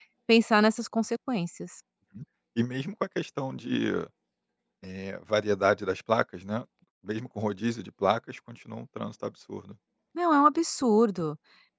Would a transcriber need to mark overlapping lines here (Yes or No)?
No